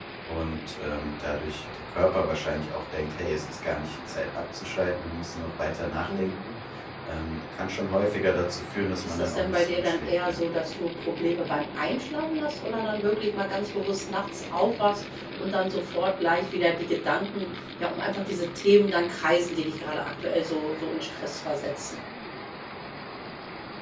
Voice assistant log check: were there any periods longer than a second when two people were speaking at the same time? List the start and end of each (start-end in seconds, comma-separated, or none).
9.0-10.4